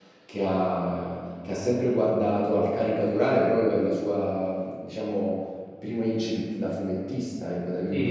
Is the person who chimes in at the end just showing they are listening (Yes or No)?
No